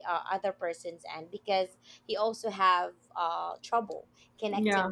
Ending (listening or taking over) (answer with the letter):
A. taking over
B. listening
B